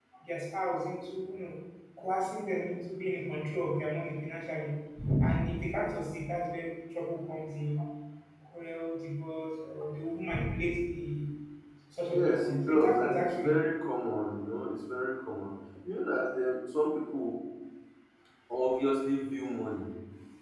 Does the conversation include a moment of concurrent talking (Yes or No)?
Yes